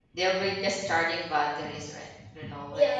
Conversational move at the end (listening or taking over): taking over